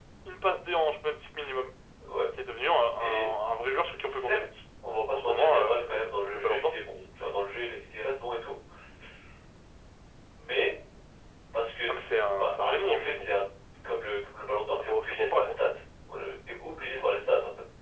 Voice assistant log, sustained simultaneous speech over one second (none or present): present